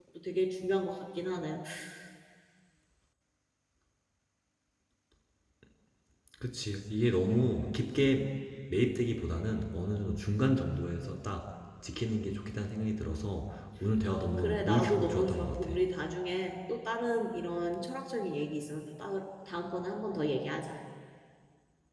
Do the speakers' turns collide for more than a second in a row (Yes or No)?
Yes